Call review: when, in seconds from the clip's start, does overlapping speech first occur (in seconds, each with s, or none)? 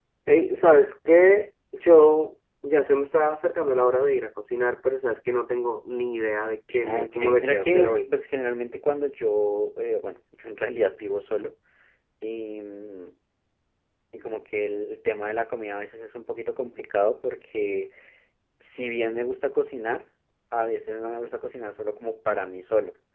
6.7 s